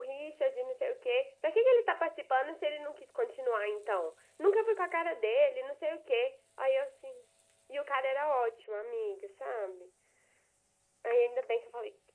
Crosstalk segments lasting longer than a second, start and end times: none

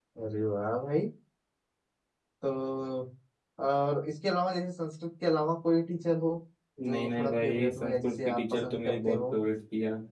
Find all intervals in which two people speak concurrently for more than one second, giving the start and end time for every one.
6.9-9.3

